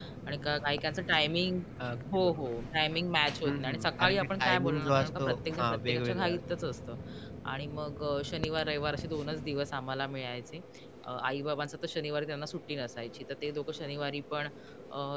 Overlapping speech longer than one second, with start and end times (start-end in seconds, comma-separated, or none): 3.4-6.4